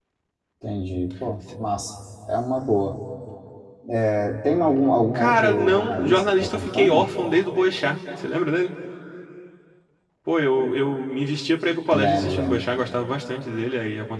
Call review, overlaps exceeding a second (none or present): present